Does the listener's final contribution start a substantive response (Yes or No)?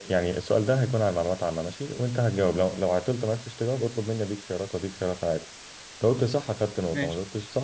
No